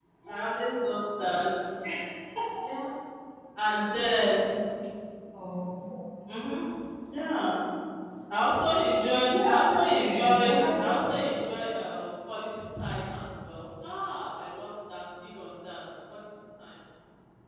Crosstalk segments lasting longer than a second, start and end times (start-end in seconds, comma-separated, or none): 9.2-11.1